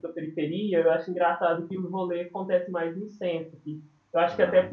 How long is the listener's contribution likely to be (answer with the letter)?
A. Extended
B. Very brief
B